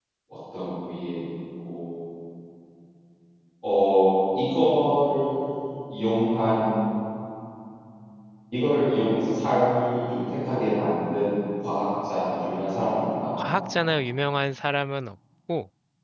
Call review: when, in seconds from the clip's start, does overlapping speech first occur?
none

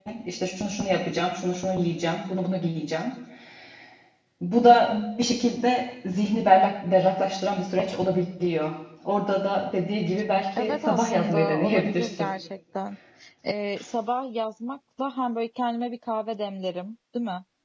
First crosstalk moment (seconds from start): 10.6 s

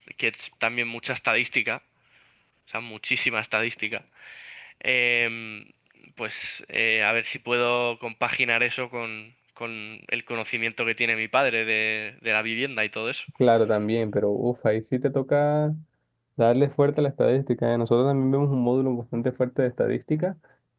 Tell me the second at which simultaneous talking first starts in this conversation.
none

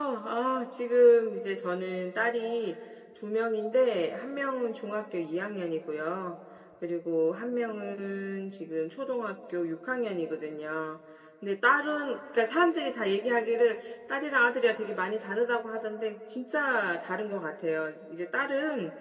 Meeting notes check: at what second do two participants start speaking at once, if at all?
none

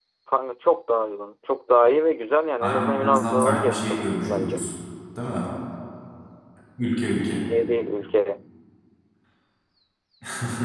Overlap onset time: 2.6 s

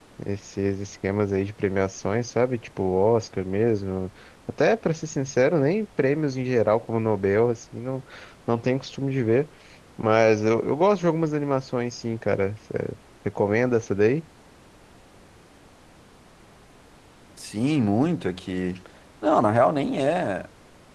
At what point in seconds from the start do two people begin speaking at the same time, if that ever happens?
none

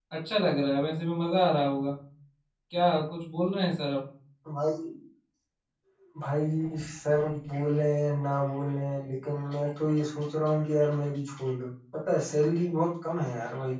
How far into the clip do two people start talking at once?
none

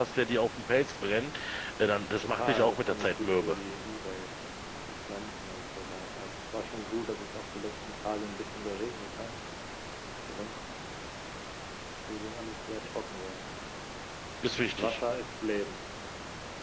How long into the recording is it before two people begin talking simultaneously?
2.2 s

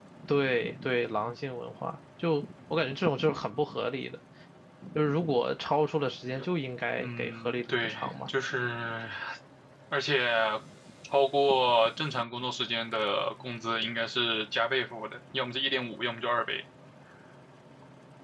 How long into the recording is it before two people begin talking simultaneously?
7.0 s

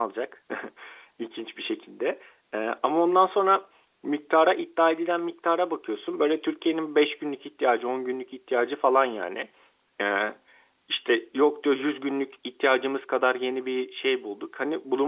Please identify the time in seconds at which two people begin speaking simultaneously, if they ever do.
none

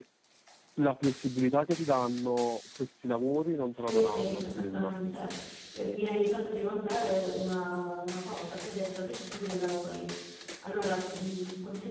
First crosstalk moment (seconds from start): 3.7 s

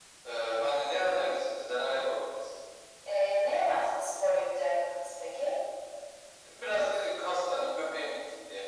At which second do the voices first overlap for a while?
none

